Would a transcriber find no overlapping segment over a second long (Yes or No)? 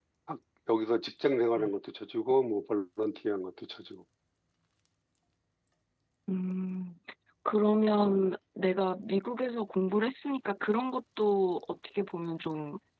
Yes